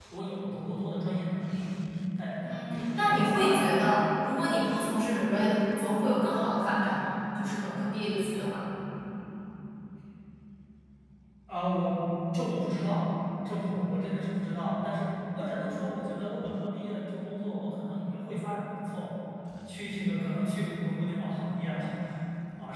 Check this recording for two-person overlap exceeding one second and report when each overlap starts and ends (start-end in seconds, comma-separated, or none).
2.4-3.8